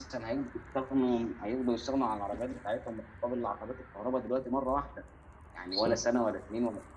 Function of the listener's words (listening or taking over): listening